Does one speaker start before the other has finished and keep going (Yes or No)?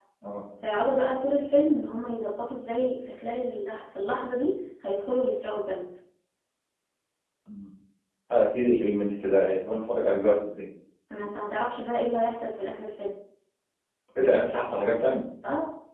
No